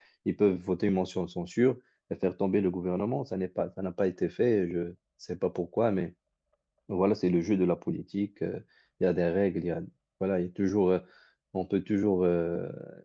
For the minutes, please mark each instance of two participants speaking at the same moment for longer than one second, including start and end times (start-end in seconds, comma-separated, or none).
none